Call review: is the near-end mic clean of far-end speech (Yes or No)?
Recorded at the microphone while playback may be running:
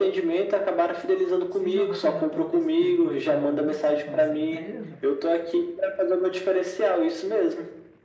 No